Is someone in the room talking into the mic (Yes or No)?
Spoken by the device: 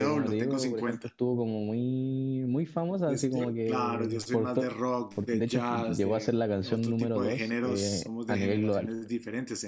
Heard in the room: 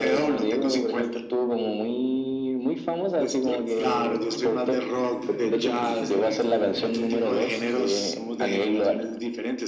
Yes